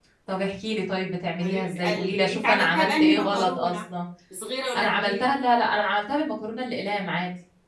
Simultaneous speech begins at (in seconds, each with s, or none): 1.4 s